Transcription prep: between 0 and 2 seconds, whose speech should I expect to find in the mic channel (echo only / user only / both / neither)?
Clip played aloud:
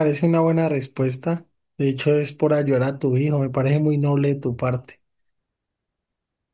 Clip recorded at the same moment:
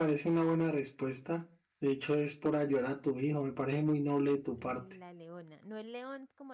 echo only